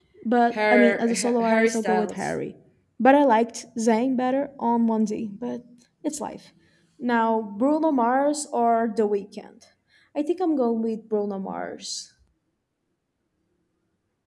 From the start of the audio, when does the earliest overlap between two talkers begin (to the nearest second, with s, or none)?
1 s